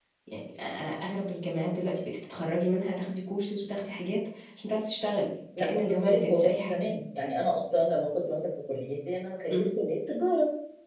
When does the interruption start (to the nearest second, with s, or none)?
6 s